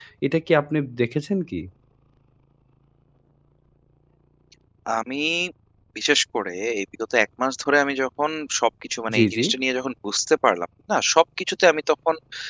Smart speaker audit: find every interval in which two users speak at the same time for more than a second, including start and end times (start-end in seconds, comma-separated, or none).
none